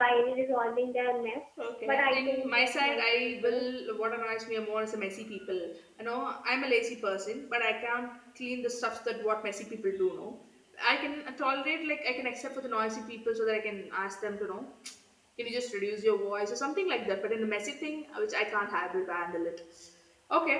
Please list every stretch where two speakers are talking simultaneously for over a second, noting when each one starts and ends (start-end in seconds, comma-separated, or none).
1.9-3.6